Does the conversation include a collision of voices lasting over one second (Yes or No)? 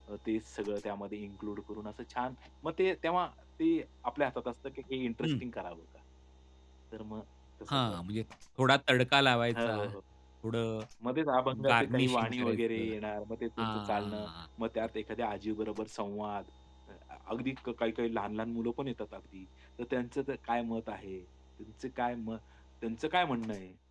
Yes